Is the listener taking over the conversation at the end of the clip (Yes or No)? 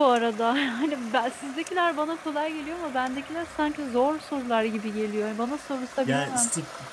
Yes